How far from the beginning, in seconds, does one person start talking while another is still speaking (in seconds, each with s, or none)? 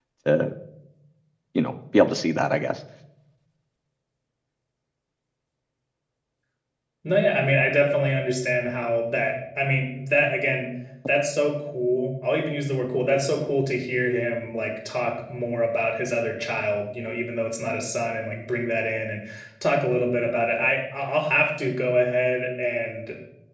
none